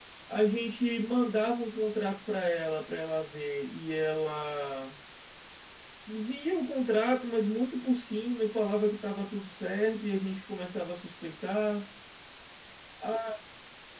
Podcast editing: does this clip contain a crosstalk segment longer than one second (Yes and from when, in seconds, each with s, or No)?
No